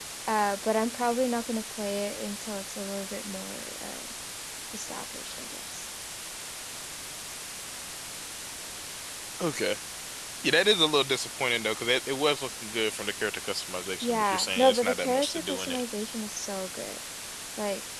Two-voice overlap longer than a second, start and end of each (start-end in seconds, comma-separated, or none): 14.0-15.8